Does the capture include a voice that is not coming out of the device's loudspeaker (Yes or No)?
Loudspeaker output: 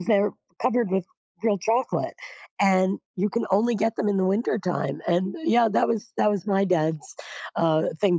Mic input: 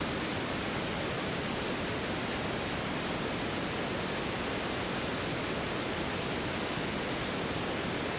No